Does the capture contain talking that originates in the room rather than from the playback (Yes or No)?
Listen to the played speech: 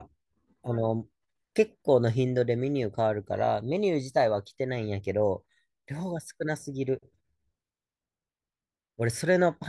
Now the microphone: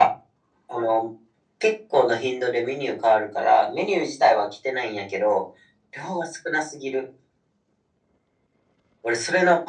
No